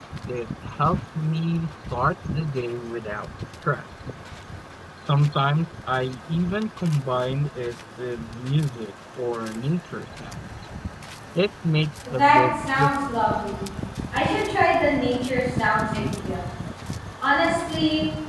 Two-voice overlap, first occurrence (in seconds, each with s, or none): 12.1 s